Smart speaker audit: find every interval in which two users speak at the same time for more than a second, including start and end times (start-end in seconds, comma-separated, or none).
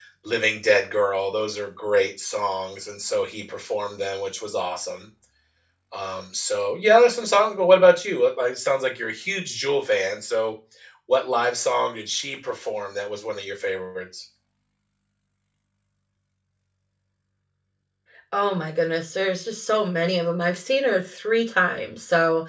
none